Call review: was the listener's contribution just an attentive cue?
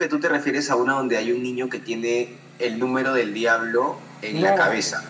No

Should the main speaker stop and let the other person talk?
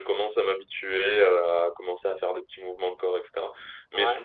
No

